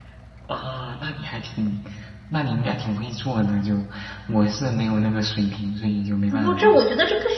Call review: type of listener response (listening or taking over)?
taking over